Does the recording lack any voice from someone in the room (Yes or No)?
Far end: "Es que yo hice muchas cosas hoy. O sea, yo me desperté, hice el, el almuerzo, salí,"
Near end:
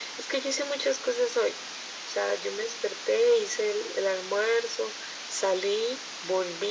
Yes